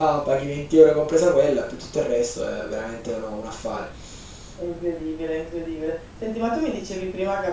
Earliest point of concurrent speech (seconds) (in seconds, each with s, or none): none